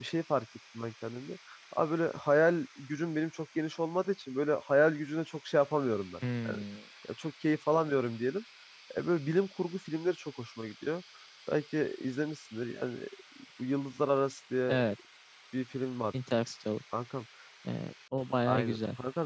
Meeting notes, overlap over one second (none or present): none